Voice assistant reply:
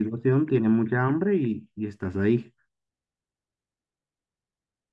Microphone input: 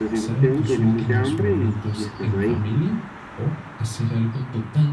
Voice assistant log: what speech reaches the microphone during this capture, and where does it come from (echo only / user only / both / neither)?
both